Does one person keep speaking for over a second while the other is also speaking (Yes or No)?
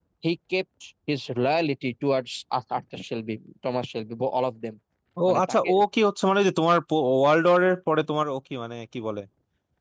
No